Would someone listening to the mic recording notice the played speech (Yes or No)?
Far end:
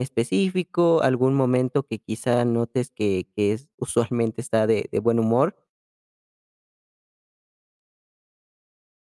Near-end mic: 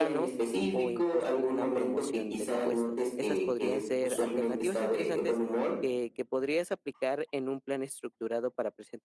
Yes